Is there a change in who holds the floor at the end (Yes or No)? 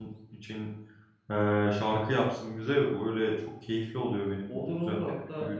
Yes